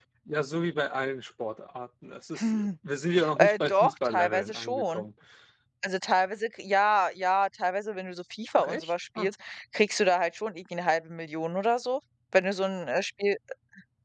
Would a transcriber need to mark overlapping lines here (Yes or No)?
Yes